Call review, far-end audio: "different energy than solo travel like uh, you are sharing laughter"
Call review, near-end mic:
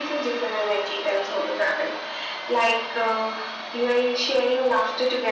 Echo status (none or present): present